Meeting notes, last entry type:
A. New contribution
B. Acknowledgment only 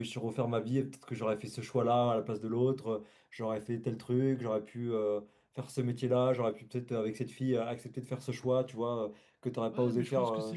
A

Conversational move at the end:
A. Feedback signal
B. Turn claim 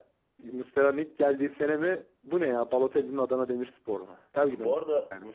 B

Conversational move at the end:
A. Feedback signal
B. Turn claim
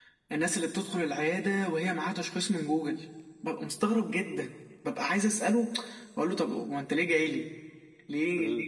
A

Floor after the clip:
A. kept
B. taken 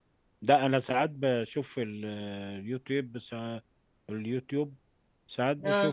A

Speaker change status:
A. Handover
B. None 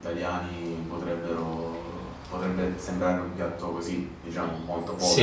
A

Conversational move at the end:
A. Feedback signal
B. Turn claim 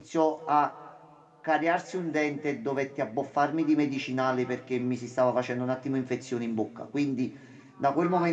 A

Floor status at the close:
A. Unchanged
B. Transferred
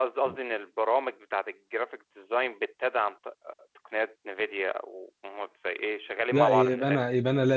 B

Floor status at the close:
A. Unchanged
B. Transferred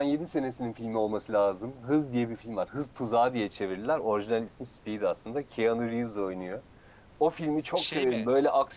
A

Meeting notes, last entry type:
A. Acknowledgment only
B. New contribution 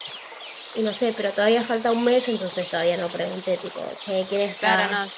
B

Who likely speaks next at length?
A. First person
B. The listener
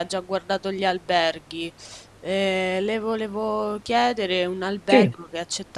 A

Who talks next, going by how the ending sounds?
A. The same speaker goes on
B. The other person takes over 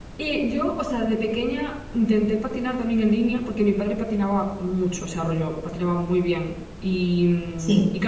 A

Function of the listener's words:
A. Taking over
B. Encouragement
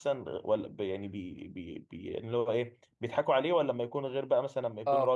B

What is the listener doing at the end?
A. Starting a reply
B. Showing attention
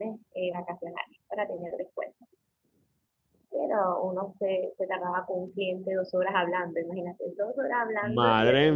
A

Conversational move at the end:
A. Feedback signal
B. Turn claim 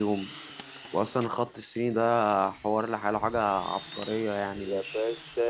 B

